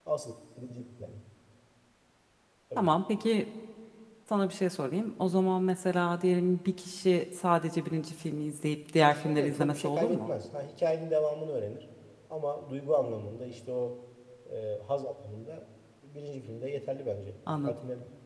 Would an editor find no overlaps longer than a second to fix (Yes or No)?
No